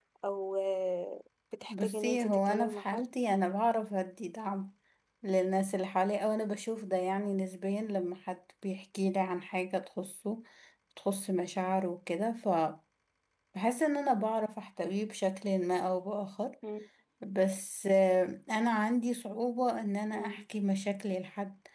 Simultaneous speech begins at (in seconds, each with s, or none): 1.7 s